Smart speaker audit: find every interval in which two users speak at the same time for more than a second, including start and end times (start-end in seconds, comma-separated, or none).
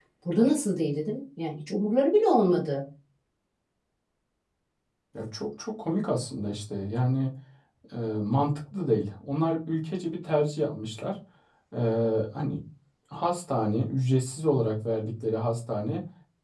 none